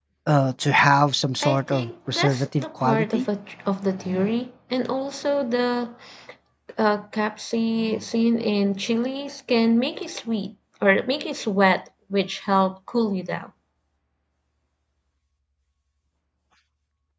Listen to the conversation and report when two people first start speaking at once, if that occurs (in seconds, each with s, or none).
1.4 s